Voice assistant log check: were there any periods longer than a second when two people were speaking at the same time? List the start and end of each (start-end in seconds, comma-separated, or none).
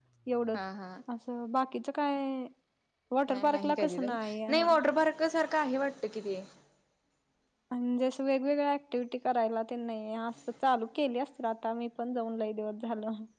3.5-4.7